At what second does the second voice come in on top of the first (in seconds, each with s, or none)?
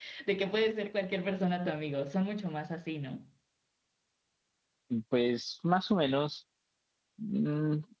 none